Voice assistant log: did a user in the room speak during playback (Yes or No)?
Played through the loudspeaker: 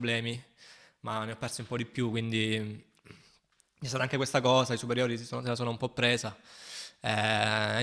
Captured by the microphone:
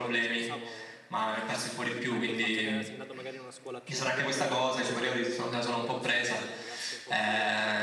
Yes